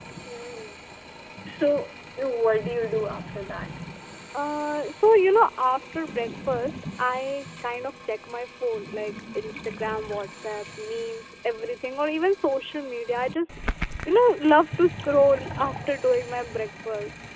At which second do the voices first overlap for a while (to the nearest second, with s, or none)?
none